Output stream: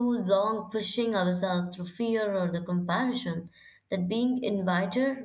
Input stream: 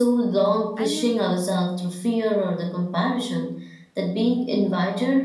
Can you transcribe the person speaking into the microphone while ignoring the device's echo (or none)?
and you